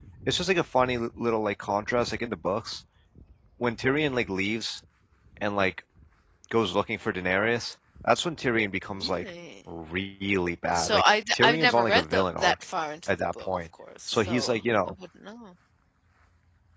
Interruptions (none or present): present